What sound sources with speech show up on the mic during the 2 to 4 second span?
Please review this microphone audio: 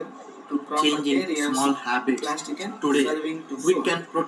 echo only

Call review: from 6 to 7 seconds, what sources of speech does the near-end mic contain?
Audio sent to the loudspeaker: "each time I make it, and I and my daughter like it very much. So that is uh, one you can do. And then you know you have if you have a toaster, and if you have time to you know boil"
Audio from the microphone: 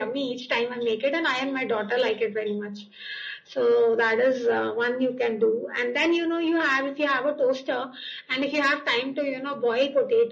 echo only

